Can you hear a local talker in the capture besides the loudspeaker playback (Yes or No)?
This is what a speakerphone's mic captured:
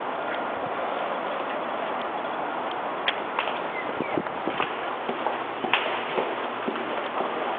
No